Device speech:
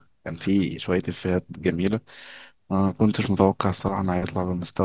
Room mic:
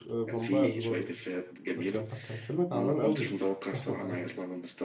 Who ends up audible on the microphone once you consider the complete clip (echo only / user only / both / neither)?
both